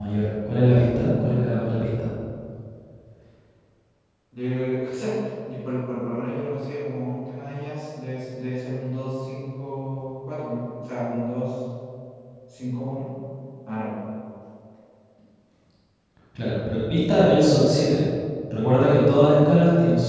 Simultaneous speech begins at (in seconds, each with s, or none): 0.6 s